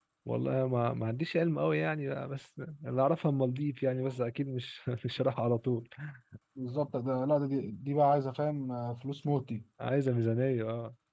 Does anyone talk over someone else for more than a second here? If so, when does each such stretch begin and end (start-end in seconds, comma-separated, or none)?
none